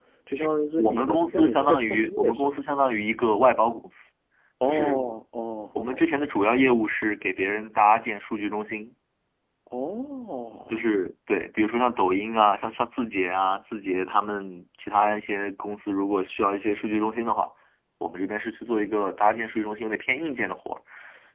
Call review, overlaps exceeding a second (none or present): present